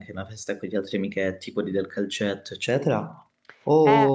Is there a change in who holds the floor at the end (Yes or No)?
Yes